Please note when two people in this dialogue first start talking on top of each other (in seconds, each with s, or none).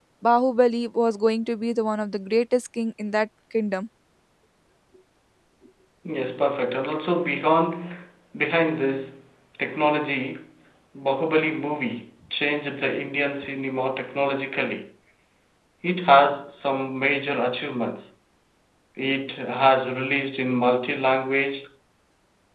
none